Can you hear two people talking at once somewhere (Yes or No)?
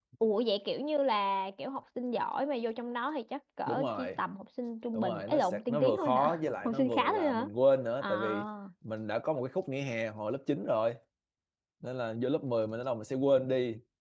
Yes